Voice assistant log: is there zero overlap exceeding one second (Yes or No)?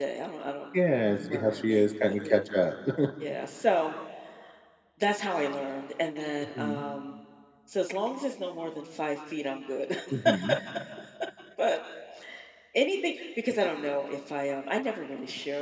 No